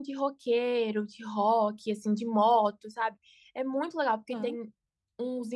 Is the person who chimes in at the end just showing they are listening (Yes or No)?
Yes